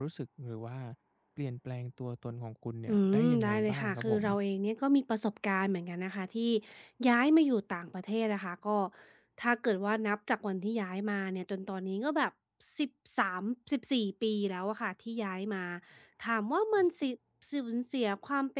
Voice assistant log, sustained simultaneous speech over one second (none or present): present